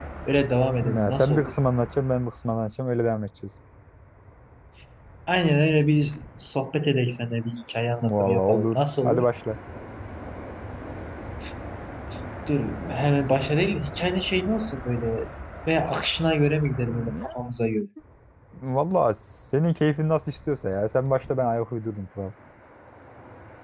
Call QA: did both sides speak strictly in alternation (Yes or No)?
No